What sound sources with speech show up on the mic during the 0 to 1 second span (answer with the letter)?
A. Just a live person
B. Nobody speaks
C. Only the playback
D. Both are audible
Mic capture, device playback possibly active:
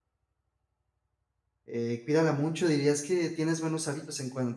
B